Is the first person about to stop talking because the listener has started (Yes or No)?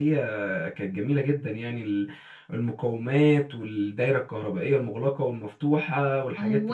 Yes